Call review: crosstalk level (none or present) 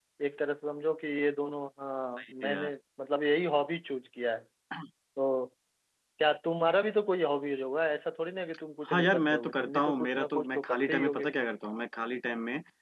present